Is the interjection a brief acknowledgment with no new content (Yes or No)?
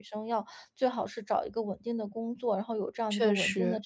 Yes